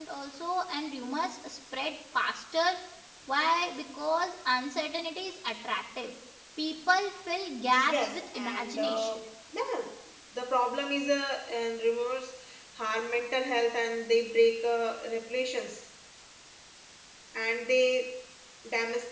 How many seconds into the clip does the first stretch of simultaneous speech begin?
8 s

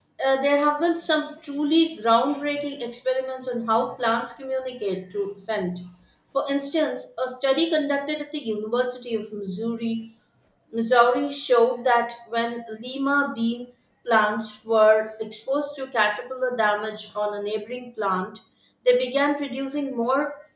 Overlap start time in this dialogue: none

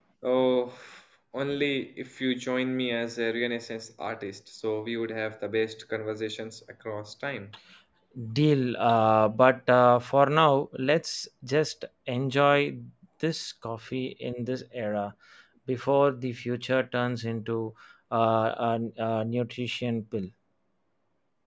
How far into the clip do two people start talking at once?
none

